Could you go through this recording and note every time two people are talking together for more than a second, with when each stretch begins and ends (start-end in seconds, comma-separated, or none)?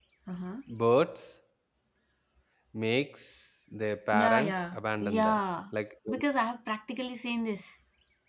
4.1-5.4